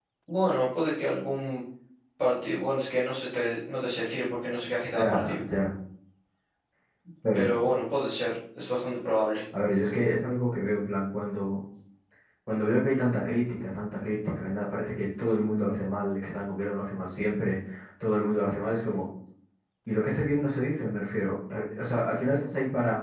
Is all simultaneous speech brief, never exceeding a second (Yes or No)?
Yes